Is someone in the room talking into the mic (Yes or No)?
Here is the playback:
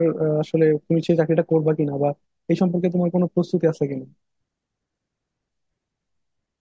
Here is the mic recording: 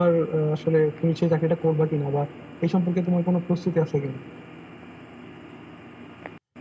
No